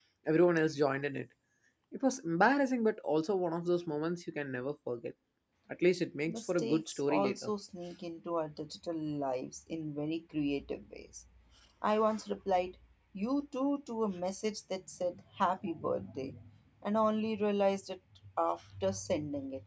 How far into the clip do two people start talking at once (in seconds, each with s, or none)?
6.3 s